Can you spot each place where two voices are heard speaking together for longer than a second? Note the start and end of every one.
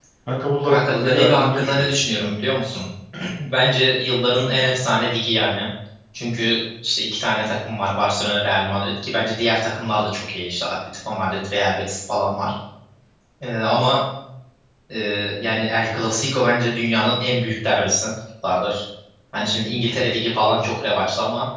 0.6-2.0

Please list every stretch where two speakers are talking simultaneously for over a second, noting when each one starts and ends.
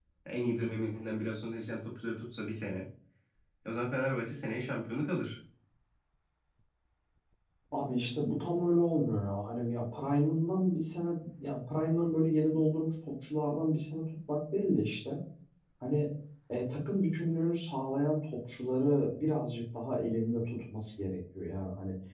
none

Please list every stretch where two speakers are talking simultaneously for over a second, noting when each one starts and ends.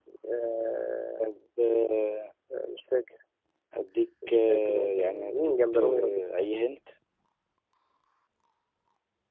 4.3-6.5

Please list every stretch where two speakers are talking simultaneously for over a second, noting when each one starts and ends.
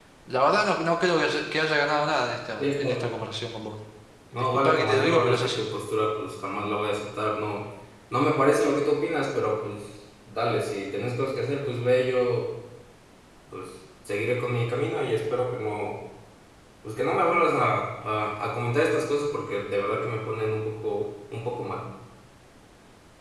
4.3-5.6

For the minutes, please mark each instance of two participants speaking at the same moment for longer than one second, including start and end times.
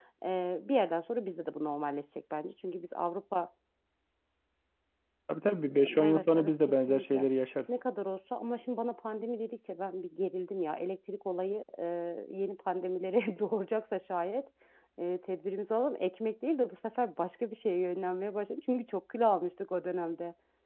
6.0-7.3

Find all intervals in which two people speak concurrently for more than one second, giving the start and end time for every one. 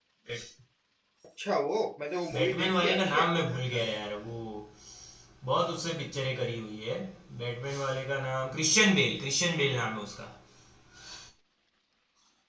2.3-3.9

